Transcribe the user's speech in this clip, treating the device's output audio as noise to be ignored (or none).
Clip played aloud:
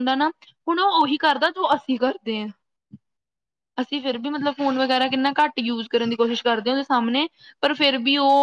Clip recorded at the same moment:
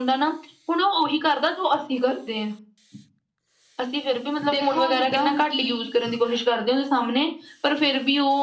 ਦੇਖੋ ਜਿੱਦਾਂ ਹੁਣ ਕੀ